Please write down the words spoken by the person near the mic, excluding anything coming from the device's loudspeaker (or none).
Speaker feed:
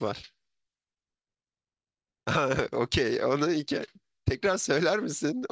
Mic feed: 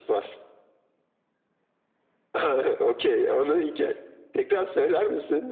none